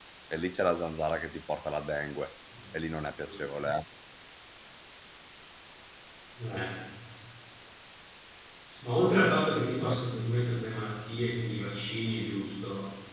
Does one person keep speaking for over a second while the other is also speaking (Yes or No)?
No